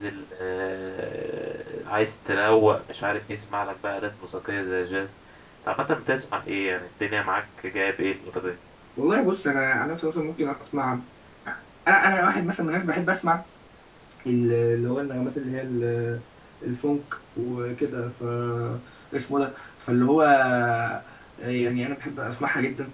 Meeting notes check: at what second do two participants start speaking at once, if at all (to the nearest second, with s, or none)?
none